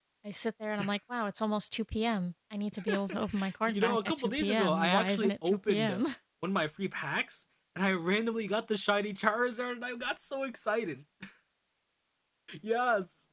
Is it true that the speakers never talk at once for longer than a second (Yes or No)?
No